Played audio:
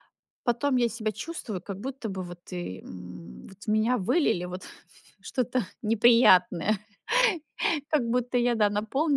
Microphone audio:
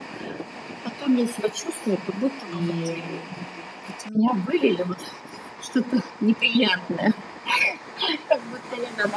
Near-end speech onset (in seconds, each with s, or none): 2.5 s